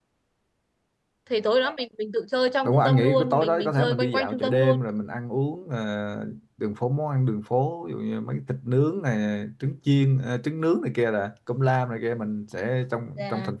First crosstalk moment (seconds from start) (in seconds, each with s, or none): 2.6 s